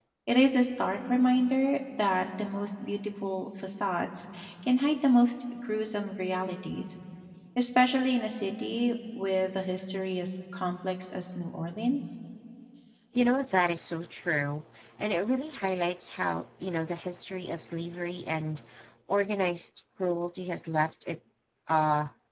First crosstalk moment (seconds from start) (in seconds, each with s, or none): none